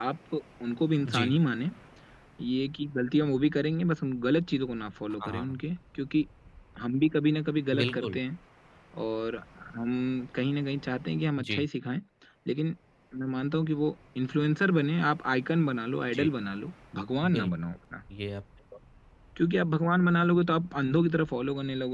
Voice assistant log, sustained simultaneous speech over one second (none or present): none